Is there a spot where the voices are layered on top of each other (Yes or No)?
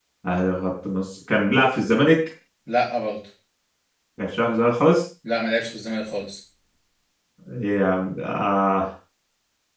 No